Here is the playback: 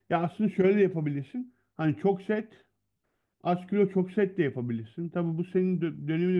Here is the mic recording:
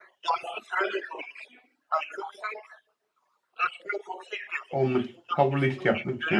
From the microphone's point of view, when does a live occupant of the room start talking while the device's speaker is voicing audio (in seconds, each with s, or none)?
4.7 s